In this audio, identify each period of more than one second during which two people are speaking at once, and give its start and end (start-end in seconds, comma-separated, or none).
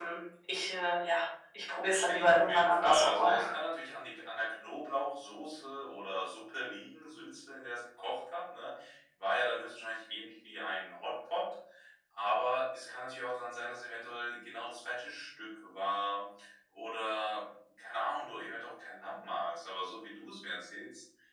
1.9-3.4